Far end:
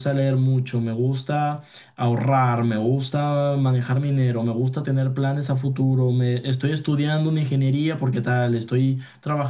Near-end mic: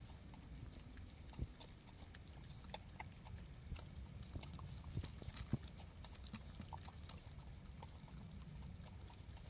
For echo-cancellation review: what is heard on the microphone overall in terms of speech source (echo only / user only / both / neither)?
neither